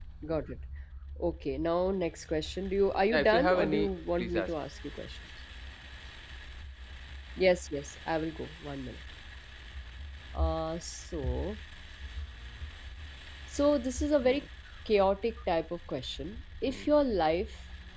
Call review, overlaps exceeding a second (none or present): present